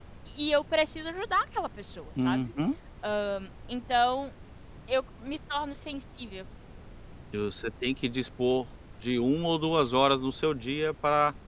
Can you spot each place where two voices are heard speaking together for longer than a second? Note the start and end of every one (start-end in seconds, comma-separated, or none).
none